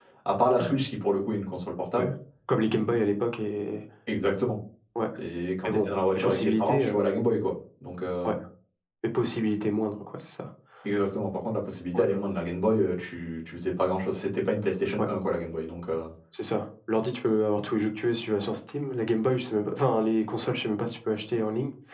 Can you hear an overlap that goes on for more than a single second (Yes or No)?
Yes